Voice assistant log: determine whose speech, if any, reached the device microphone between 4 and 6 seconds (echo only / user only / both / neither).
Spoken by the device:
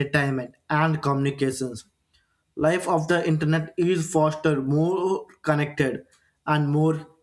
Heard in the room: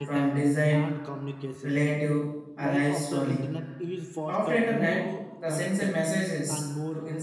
both